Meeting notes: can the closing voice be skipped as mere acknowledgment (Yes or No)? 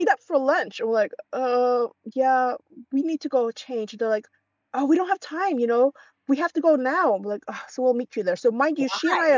Yes